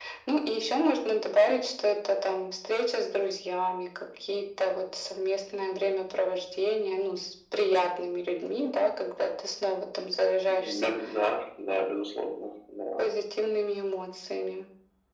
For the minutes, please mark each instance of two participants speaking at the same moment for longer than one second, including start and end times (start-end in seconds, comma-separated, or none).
none